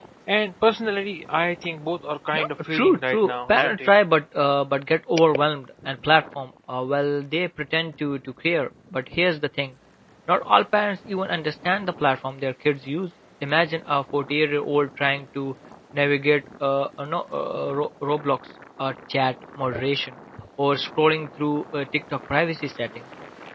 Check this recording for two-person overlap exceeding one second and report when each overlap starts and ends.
2.3-3.9

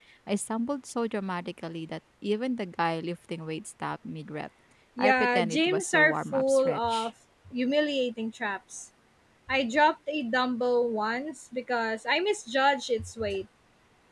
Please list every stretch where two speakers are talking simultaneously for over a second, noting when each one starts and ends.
5.0-7.1

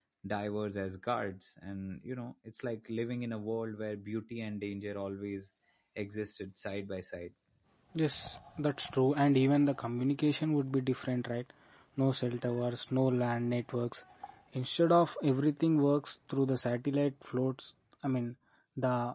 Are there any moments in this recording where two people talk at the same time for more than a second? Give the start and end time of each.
none

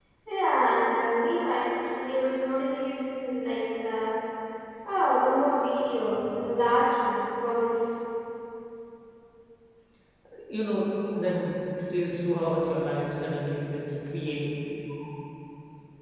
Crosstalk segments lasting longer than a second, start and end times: none

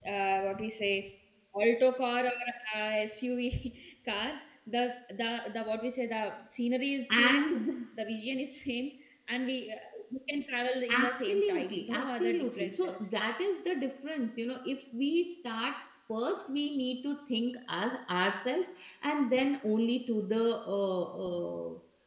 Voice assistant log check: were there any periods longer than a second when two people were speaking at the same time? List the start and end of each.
10.9-13.1

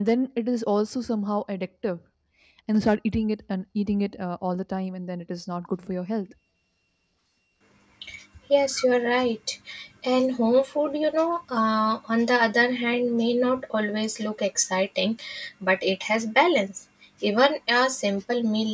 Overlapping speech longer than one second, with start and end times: none

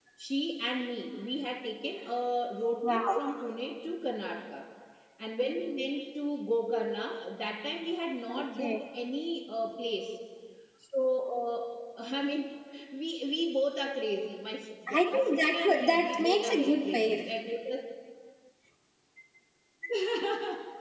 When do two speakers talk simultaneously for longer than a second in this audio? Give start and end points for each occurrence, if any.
14.9-17.2

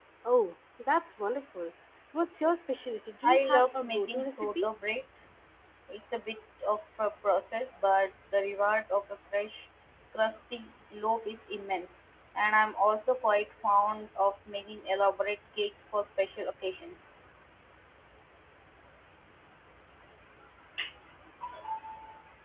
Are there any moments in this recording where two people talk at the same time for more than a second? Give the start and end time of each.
3.2-4.7

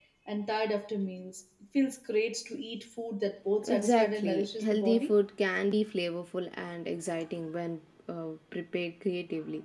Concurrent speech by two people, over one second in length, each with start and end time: 3.6-5.1

